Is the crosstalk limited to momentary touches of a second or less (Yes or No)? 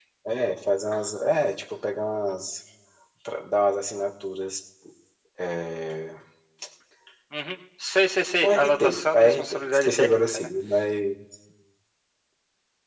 No